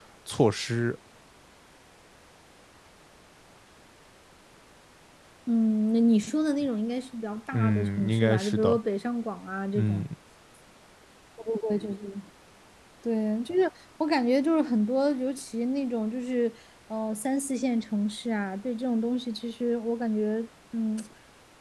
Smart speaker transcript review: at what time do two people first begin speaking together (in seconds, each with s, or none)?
7.5 s